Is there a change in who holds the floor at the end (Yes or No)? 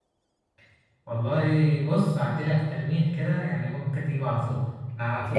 No